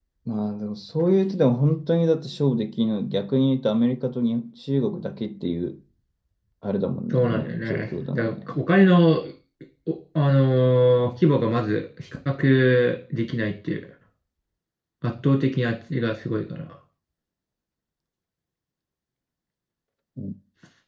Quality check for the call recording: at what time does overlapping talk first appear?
7.1 s

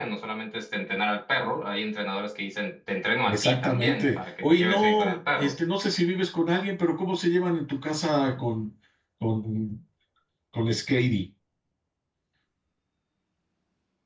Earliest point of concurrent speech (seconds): 3.3 s

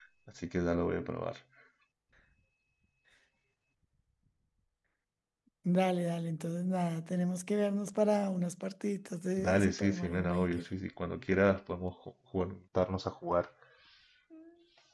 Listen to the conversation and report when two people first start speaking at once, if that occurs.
9.4 s

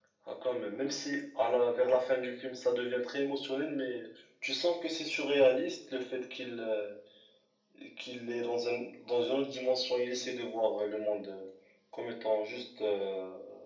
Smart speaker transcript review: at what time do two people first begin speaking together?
none

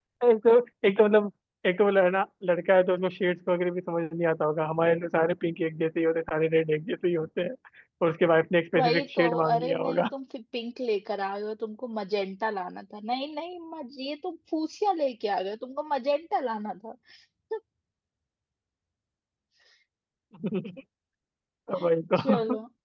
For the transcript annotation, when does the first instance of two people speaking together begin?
8.8 s

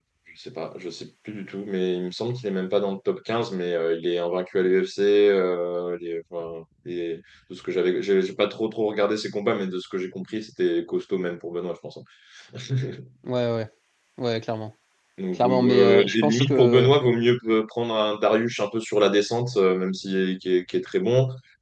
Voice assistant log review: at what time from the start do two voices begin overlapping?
15.4 s

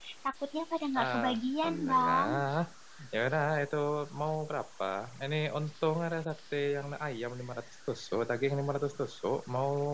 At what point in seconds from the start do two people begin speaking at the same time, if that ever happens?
1.0 s

